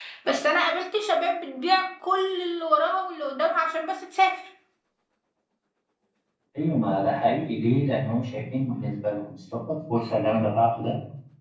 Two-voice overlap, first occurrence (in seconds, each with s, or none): none